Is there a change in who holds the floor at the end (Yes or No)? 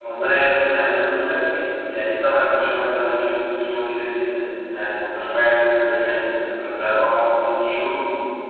No